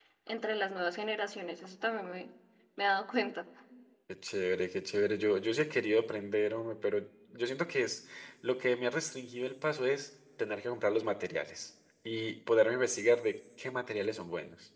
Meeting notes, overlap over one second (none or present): none